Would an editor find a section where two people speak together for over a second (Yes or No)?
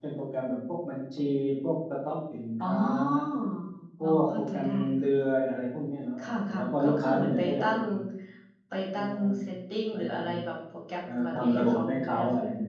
Yes